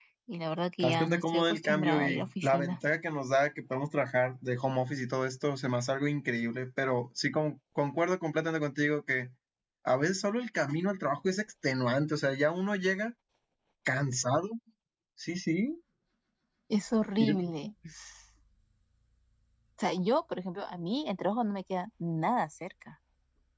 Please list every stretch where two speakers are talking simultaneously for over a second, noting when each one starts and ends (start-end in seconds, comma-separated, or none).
0.8-2.8